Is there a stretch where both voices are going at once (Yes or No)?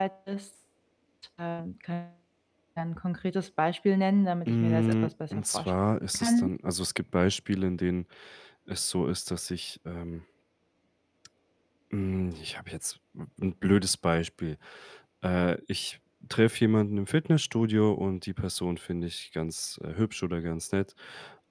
Yes